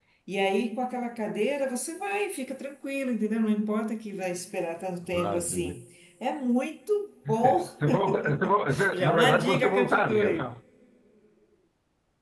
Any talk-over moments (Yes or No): Yes